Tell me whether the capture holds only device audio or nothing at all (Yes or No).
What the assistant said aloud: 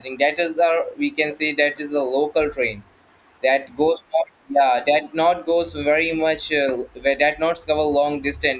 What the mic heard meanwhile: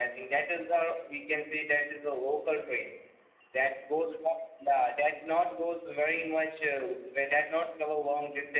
Yes